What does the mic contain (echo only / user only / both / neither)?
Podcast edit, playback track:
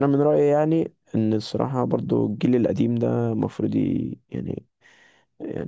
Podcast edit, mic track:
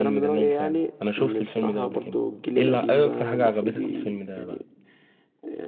both